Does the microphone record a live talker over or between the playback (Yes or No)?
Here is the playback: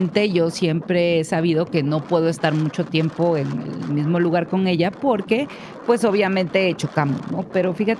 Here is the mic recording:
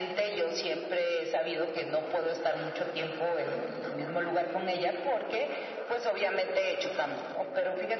No